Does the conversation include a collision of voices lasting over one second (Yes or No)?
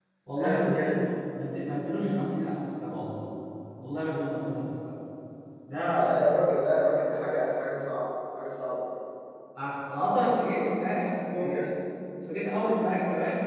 No